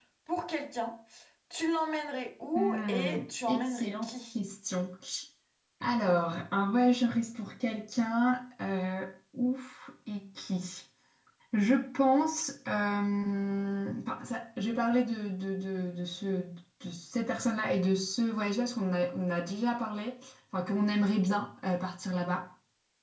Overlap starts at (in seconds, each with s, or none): 2.5 s